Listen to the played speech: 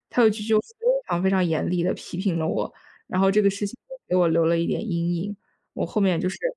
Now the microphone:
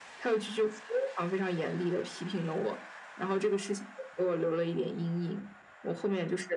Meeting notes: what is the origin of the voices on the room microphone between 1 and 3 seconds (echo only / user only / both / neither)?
echo only